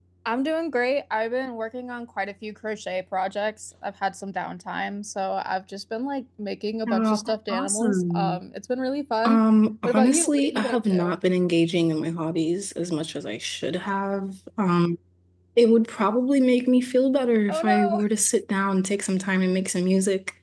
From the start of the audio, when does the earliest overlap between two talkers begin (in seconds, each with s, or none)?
6.9 s